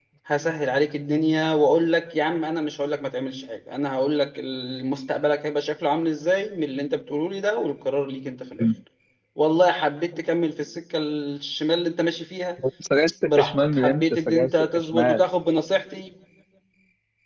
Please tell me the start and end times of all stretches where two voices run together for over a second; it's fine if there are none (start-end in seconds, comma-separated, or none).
13.2-15.2